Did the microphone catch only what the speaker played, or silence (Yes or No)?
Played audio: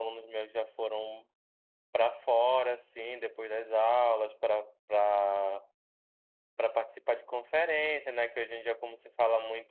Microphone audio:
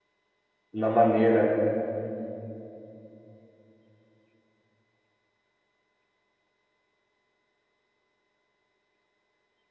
No